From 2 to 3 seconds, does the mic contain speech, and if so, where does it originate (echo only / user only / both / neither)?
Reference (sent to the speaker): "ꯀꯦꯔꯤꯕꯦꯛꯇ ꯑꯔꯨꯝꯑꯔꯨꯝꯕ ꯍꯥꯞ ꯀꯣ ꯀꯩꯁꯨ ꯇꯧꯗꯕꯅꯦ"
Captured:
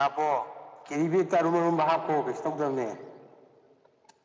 echo only